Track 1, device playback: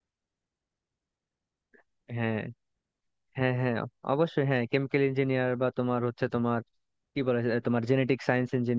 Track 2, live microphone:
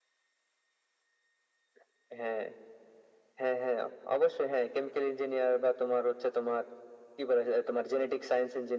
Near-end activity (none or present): none